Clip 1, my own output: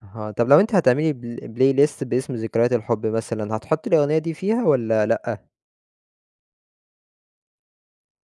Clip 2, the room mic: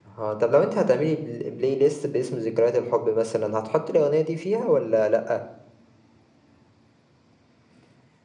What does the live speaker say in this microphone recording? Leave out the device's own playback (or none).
none